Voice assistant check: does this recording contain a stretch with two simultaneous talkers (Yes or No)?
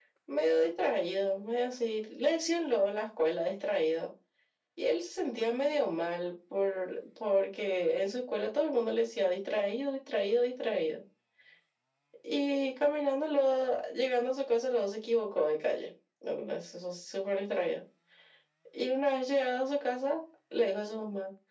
No